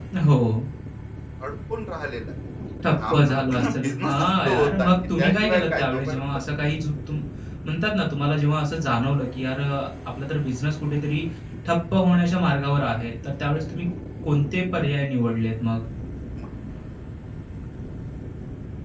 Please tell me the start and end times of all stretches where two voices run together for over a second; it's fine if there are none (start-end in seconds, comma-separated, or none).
2.8-6.2